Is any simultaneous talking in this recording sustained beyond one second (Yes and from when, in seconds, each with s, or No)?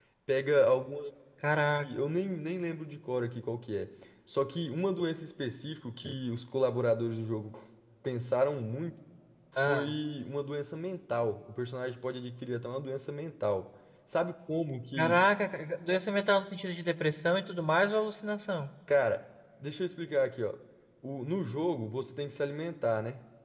No